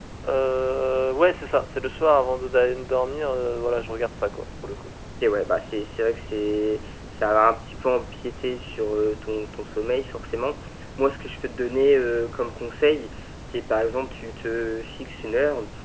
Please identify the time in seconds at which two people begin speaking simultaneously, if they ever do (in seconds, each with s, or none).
none